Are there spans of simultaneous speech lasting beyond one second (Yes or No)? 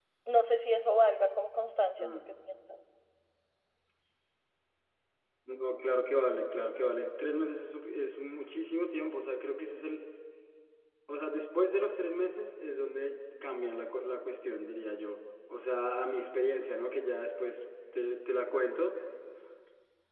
No